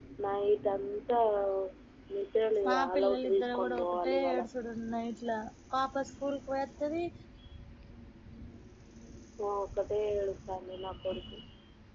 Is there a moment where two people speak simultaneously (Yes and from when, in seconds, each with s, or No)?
Yes, from 2.7 s